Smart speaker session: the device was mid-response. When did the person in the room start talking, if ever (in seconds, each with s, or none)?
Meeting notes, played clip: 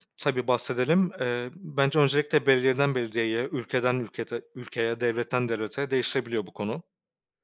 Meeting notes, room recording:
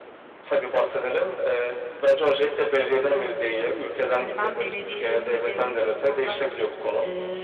3.1 s